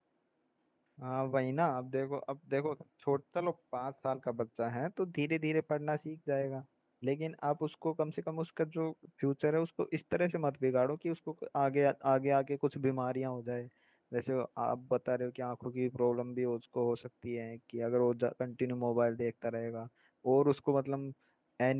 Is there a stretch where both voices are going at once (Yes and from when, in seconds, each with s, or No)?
No